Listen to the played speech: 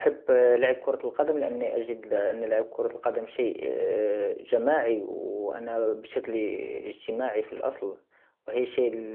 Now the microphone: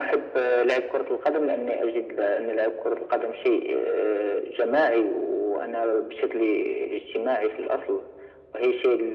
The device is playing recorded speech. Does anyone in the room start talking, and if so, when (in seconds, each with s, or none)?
none